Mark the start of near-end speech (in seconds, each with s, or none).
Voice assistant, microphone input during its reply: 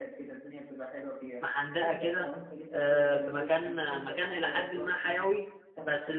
1.4 s